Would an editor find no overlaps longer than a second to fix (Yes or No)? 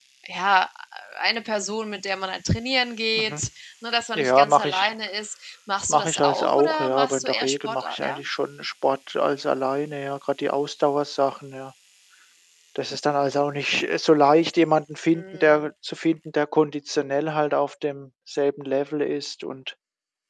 No